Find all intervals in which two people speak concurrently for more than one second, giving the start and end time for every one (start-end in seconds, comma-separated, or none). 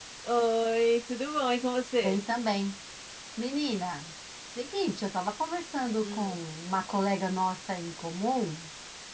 none